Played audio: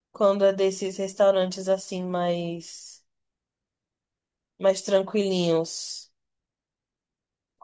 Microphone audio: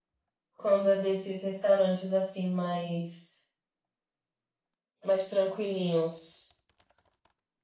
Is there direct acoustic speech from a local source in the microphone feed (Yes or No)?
No